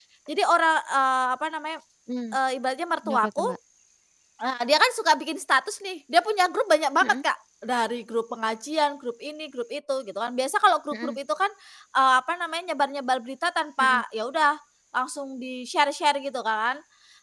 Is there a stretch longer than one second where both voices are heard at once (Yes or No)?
No